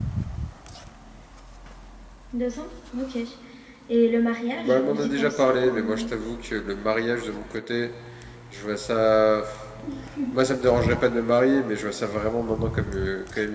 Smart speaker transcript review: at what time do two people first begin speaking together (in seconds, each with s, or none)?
4.5 s